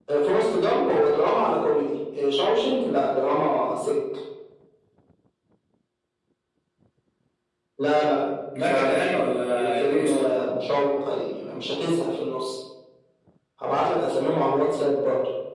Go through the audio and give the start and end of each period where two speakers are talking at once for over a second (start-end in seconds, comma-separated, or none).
8.6-10.3